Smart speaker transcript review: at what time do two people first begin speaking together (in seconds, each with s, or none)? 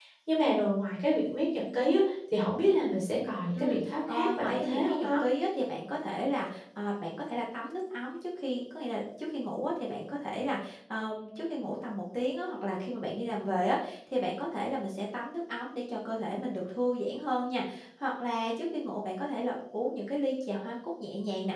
3.5 s